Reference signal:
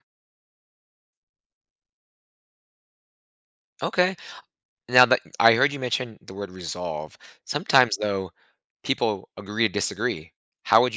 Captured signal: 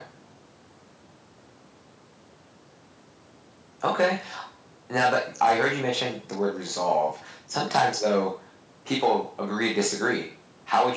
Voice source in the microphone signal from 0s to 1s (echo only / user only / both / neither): neither